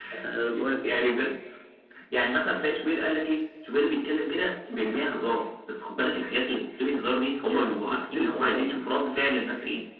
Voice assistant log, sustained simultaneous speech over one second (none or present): present